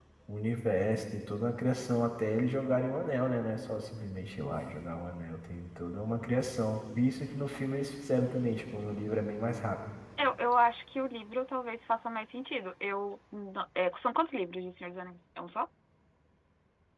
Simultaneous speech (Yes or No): No